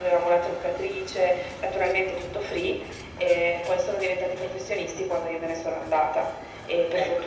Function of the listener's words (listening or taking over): listening